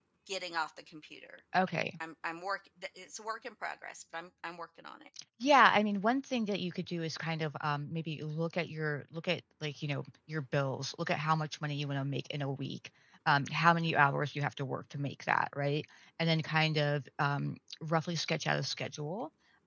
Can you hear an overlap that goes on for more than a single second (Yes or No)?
No